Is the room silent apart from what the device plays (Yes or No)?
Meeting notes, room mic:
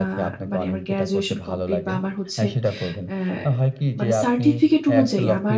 No